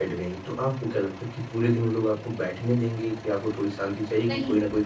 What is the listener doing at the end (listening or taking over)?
listening